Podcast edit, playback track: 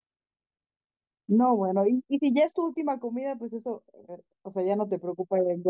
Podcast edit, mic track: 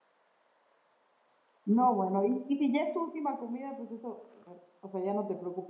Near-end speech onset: none

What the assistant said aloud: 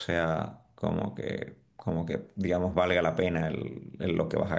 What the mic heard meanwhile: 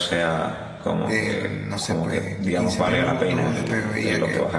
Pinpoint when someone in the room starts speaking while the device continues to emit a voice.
1.1 s

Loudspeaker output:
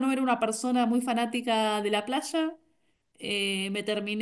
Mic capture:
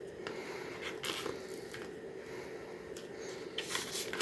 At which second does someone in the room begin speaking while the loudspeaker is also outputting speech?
none

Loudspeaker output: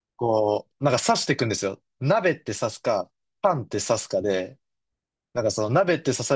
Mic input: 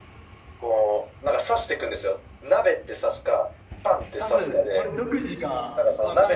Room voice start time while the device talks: 4.1 s

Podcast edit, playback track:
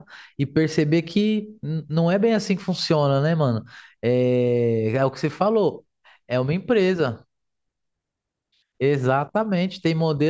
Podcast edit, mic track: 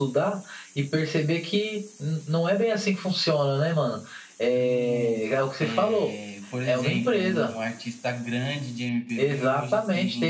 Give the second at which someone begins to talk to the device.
4.5 s

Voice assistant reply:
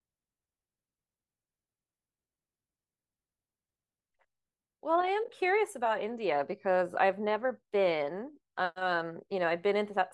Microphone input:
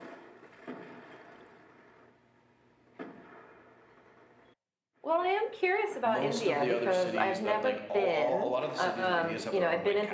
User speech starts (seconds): 6.0 s

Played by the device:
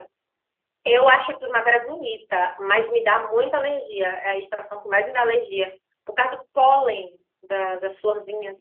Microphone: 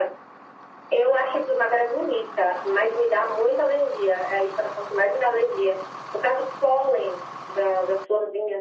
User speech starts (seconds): none

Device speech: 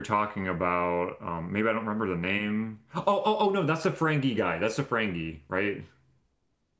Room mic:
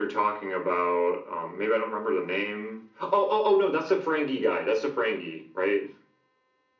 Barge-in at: none

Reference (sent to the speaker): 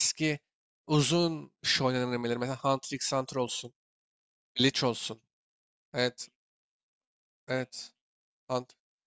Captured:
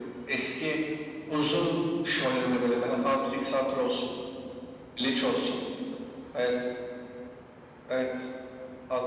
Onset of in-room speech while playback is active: none

